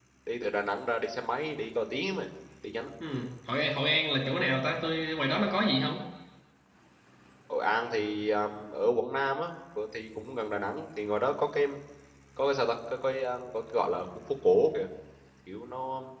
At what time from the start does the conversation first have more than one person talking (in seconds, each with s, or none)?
none